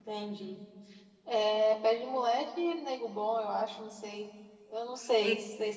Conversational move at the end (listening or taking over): taking over